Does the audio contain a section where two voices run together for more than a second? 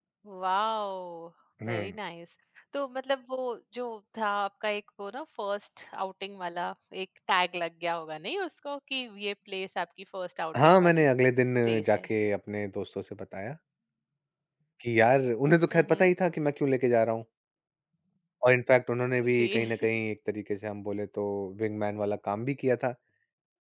No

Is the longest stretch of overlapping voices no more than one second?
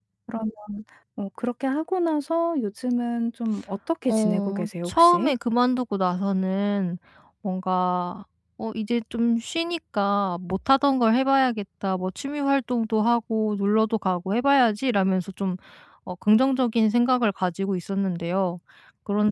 No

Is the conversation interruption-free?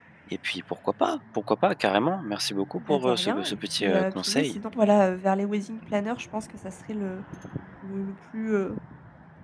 No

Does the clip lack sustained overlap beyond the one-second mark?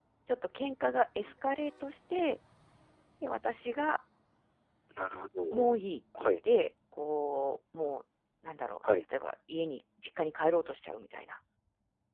Yes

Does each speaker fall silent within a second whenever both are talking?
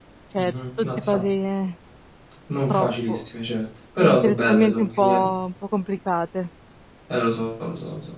No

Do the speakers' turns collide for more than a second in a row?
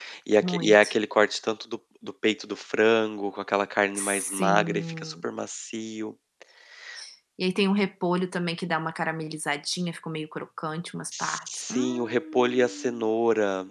Yes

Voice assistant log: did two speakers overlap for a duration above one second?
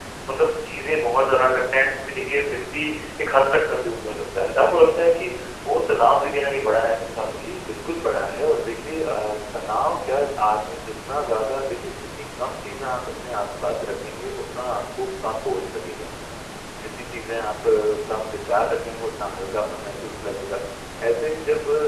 No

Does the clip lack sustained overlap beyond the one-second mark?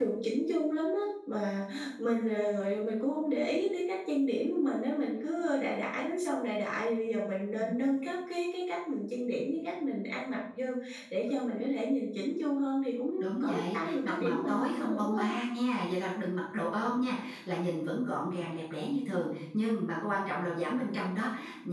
No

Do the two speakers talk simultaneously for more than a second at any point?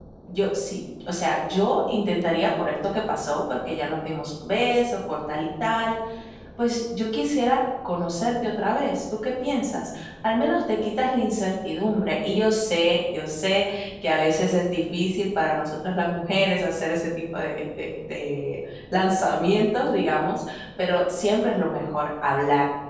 No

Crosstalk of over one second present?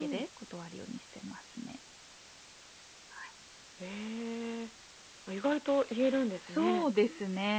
No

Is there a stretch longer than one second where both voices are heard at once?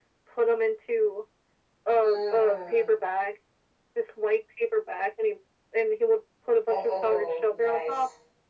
Yes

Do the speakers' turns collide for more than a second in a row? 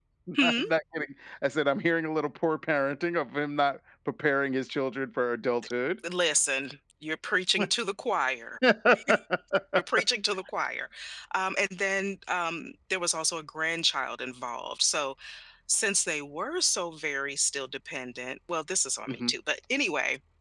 No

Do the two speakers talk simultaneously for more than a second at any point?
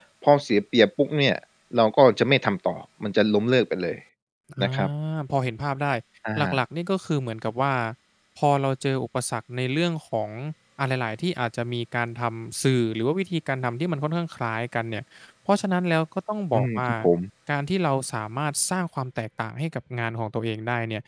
No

